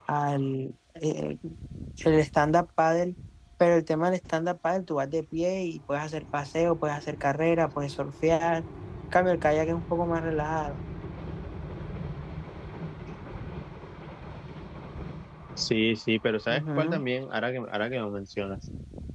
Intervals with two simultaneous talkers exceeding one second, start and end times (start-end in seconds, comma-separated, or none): none